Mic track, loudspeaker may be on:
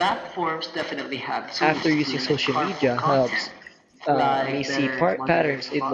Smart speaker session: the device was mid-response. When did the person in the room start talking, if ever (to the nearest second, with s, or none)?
2 s